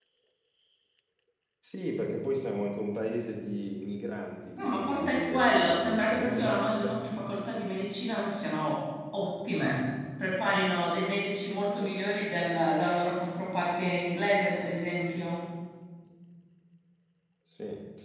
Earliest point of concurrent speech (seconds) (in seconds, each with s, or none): 4.5 s